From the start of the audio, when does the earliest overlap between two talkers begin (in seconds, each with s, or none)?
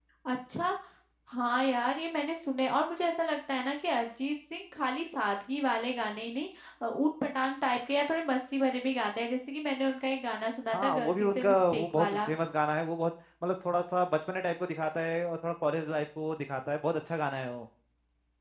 10.7 s